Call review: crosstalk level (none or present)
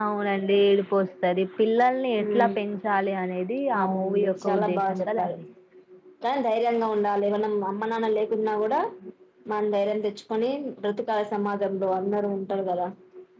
present